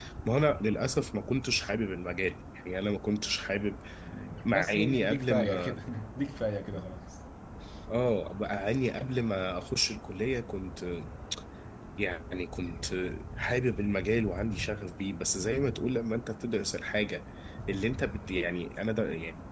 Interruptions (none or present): present